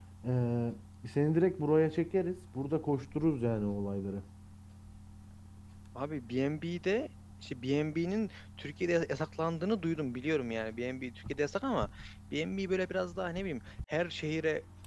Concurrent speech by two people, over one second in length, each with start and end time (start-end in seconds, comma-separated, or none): none